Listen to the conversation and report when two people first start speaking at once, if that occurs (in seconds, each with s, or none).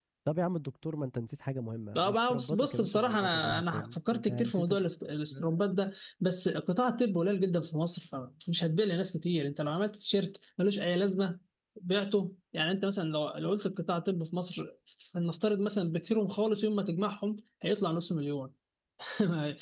2.0 s